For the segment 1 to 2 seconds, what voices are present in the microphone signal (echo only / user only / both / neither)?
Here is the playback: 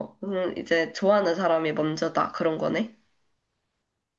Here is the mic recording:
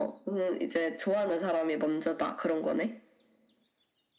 echo only